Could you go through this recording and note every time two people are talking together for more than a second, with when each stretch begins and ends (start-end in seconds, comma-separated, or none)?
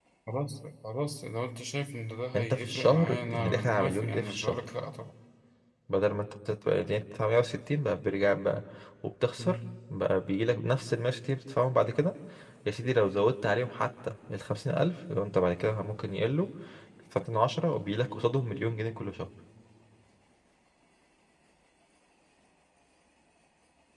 2.4-4.6